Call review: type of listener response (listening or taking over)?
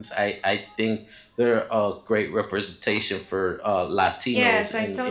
taking over